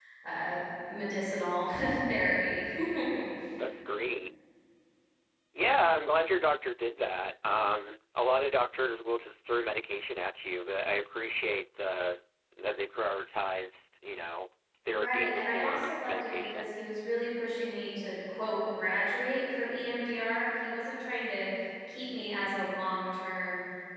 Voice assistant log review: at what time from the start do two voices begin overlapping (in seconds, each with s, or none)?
14.9 s